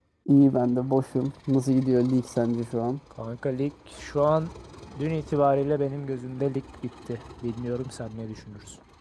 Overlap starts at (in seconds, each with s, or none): none